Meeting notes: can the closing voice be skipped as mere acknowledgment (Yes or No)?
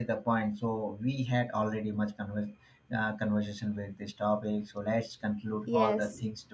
Yes